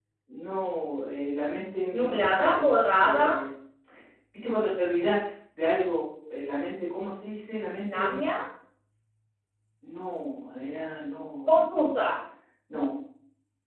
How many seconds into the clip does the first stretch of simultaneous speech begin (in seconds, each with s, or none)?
2.0 s